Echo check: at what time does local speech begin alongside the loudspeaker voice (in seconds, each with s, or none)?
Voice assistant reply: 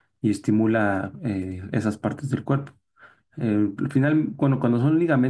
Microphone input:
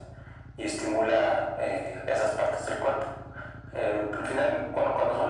none